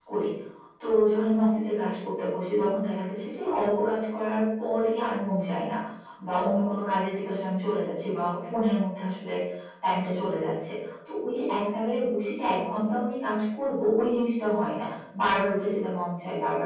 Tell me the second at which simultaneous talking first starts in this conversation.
none

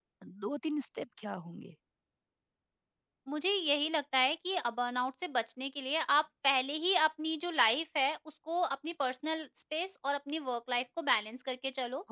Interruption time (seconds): none

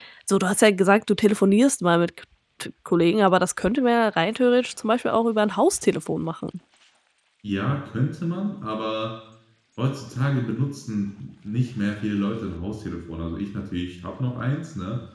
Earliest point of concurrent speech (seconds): none

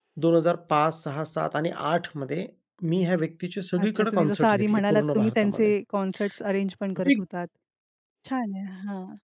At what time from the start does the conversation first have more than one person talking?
4 s

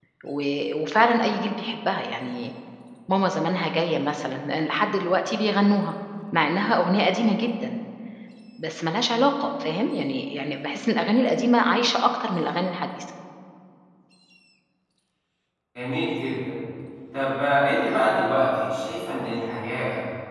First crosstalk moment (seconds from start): none

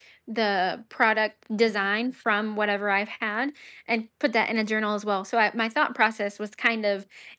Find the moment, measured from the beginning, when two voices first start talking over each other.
none

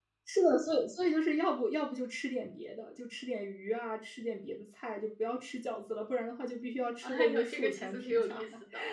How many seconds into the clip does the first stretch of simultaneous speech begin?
7 s

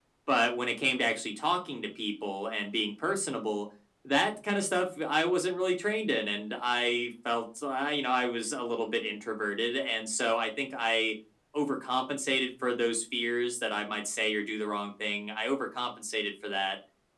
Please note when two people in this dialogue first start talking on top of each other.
none

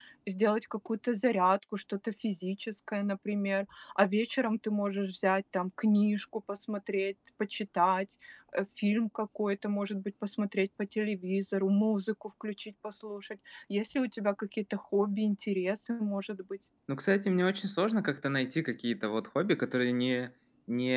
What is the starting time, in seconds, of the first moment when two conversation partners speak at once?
none

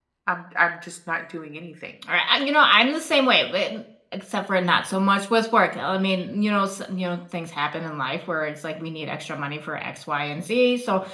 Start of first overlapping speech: none

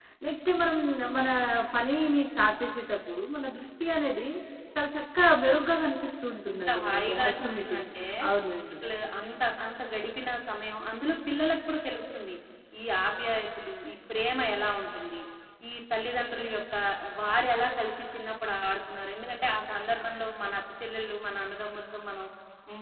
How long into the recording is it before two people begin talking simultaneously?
6 s

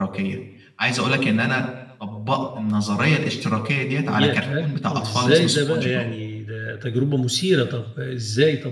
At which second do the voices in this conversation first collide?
4 s

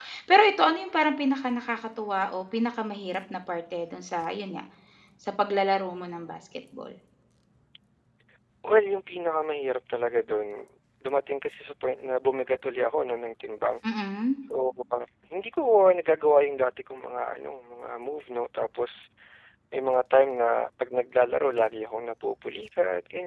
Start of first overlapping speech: none

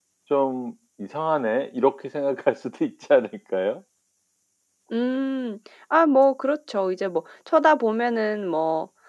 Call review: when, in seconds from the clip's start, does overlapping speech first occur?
none

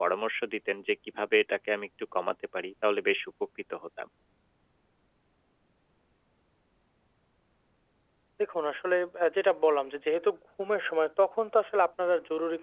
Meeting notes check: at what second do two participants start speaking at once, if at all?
none

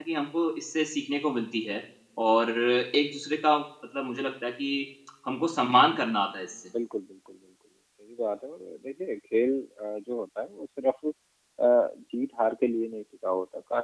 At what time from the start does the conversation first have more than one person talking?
none

